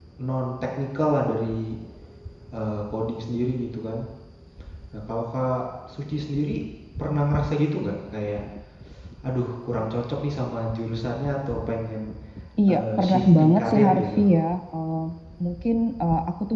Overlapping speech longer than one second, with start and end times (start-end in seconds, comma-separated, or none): 12.7-14.2